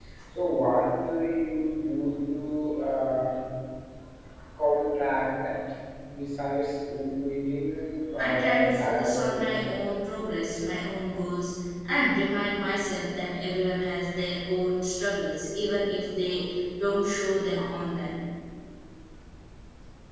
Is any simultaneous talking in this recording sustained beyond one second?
Yes, from 8.2 s

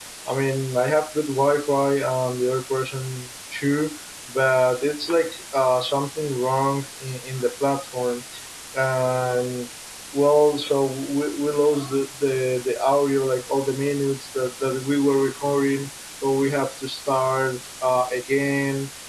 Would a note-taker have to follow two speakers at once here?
No

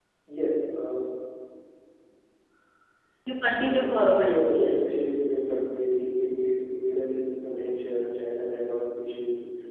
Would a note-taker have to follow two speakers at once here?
Yes, from 3.6 s

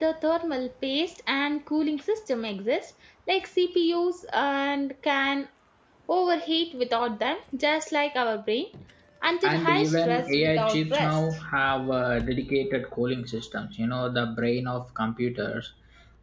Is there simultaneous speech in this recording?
Yes, from 9.5 s

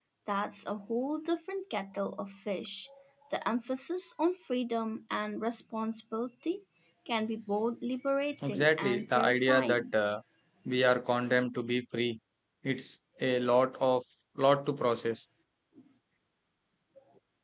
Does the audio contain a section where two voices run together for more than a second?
Yes, from 8.4 s

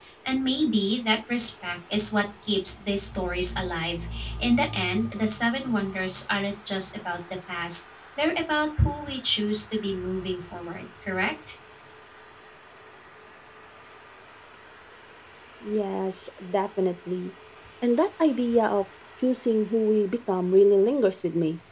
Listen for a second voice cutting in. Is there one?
No

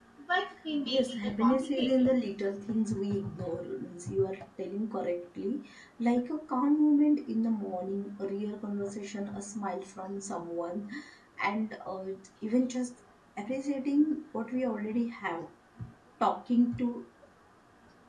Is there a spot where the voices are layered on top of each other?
Yes, from 0.9 s

